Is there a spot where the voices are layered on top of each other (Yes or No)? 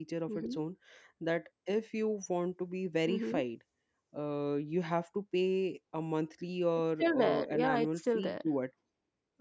Yes